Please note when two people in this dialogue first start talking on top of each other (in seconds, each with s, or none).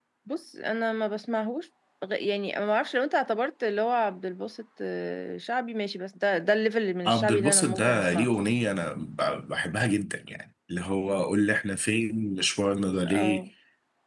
7.0 s